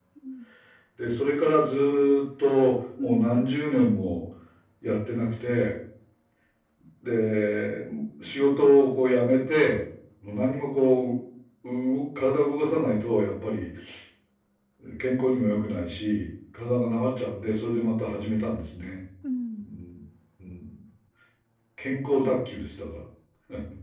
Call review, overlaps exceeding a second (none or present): none